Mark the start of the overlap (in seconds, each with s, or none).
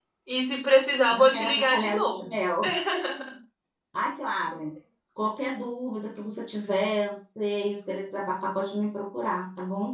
1.1 s